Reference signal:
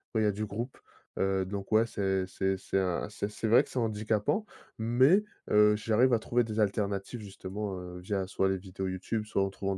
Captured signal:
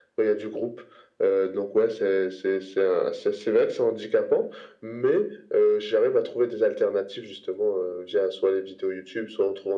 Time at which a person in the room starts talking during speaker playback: none

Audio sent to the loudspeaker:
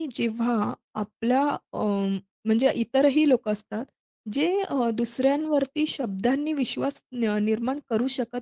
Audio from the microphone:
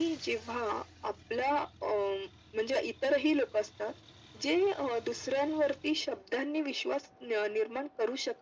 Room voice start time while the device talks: none

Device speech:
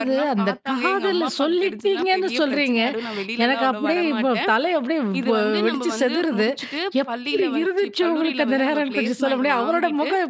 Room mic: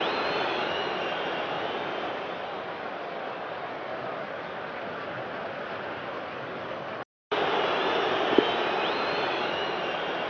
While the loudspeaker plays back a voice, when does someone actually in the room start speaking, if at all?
none

